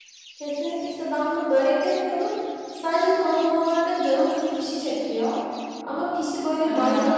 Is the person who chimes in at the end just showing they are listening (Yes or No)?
Yes